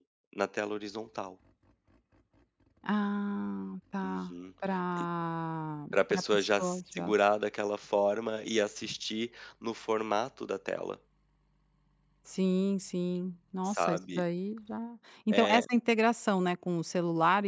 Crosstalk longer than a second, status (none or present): present